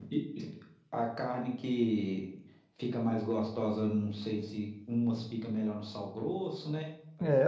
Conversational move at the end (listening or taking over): taking over